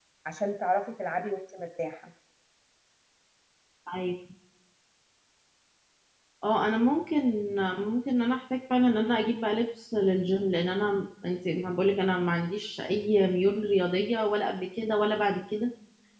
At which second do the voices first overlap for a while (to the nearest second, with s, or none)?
none